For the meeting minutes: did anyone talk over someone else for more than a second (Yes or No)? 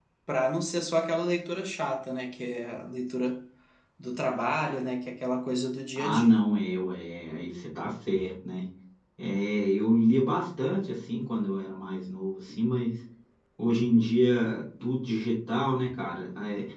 No